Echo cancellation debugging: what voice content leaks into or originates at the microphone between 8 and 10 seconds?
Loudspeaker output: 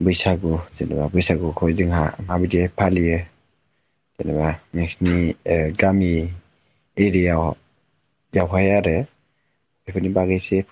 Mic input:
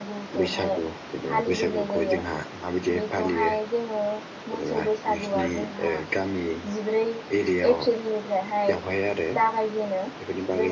both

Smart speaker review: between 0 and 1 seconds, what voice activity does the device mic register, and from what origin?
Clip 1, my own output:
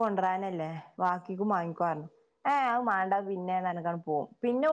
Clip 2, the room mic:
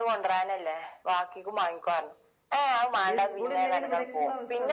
echo only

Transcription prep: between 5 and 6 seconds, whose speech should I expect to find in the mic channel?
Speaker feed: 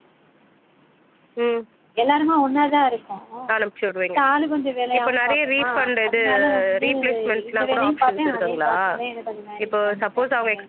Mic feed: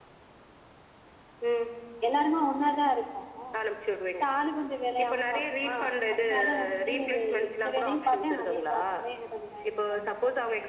echo only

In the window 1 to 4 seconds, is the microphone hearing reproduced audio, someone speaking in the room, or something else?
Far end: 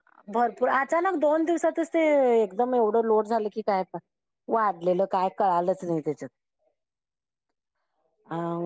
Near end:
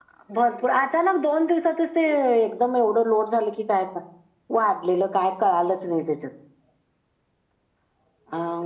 echo only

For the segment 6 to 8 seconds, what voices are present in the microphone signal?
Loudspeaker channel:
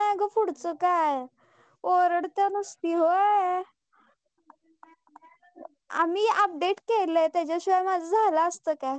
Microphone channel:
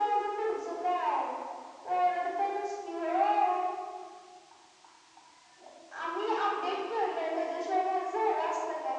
echo only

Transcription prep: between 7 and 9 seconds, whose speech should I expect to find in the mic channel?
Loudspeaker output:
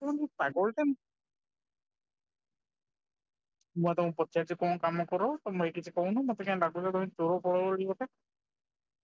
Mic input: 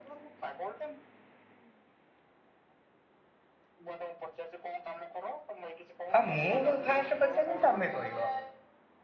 both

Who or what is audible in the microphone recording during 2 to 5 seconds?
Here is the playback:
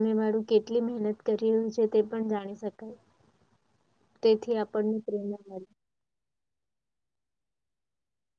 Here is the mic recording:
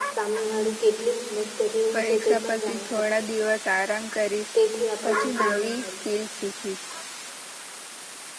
both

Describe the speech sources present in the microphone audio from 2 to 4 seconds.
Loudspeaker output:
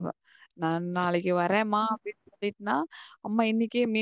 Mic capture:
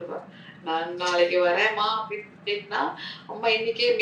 echo only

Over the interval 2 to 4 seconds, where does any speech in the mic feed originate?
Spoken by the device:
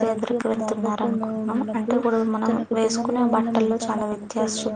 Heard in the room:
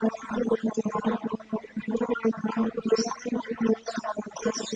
echo only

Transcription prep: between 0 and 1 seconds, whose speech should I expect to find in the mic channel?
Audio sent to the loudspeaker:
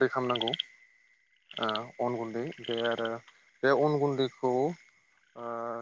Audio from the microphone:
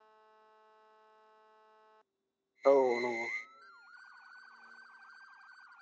neither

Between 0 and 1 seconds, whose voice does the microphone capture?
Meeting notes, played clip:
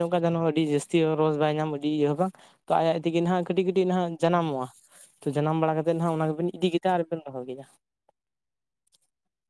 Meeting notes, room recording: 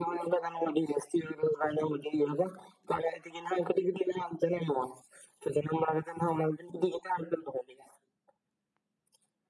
echo only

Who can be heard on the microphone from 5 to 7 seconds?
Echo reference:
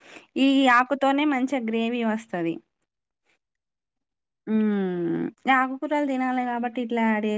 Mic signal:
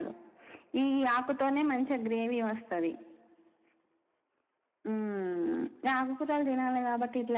echo only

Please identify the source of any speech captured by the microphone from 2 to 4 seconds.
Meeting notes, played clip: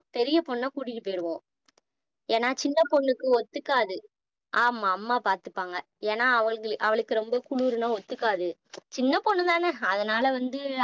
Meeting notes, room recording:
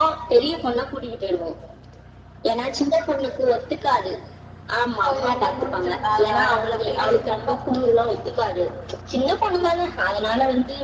echo only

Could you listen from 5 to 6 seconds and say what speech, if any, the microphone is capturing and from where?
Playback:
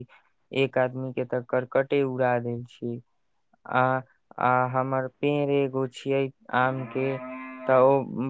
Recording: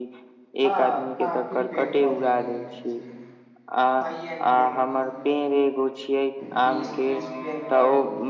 both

